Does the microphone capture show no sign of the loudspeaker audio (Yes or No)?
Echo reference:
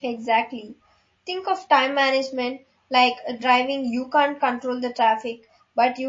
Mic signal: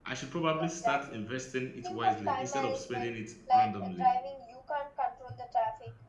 No